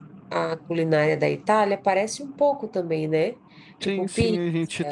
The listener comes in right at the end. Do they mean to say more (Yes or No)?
Yes